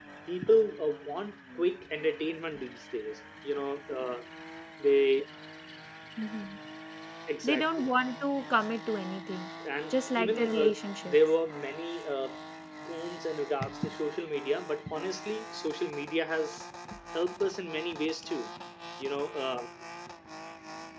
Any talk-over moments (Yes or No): Yes